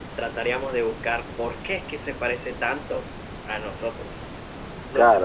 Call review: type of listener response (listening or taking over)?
taking over